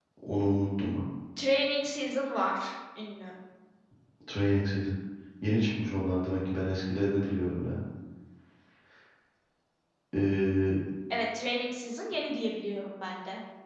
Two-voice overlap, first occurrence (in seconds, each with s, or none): none